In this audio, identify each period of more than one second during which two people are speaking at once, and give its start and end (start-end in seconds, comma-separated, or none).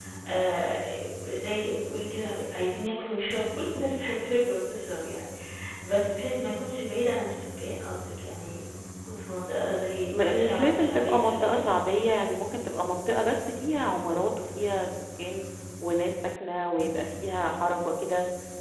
10.1-11.6